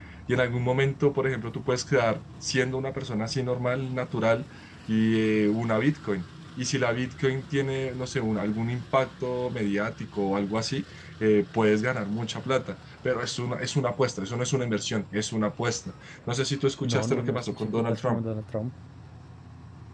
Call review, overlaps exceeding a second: present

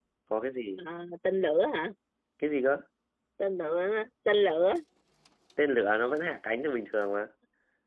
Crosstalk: none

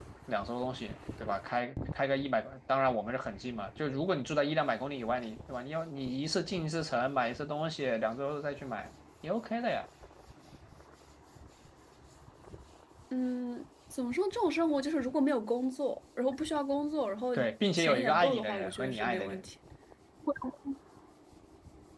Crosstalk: present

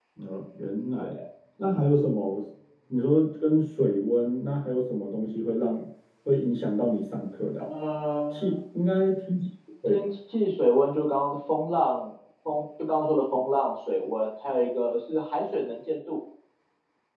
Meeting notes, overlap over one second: none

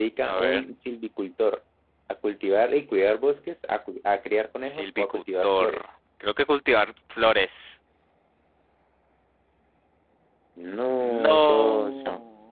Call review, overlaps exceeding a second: present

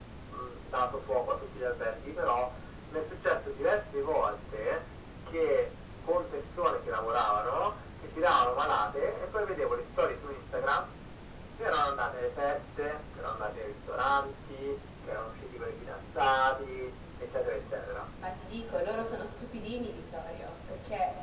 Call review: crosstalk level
none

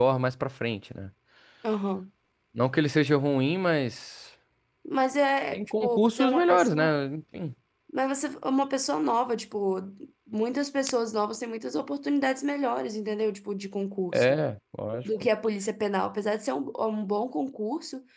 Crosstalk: present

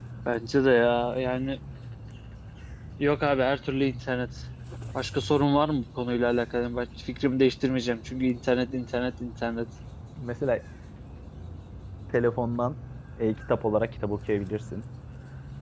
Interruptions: none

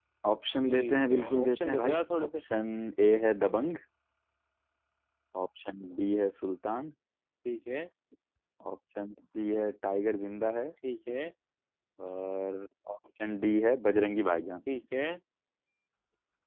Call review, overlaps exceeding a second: present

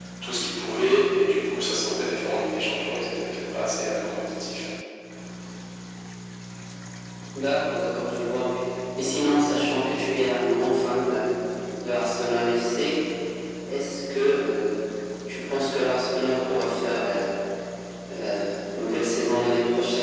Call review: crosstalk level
none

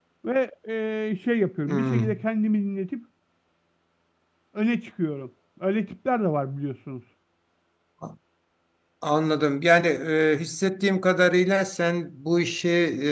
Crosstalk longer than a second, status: none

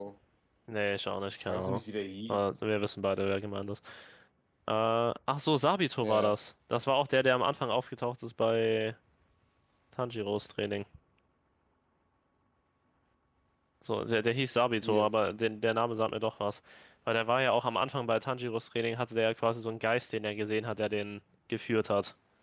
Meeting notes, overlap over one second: none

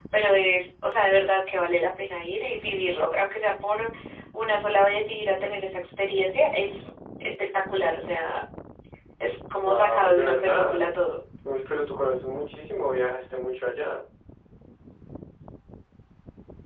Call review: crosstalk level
present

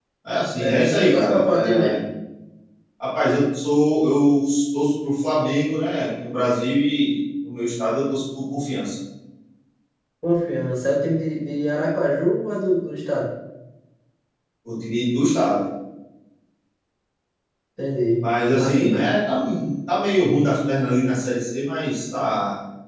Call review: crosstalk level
present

